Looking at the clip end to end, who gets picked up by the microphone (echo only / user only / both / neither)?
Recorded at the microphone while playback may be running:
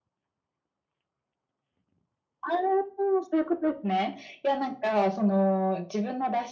echo only